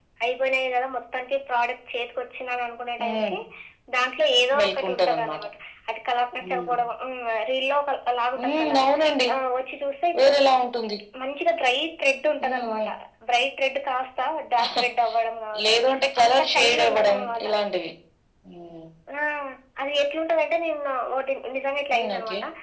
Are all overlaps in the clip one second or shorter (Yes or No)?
No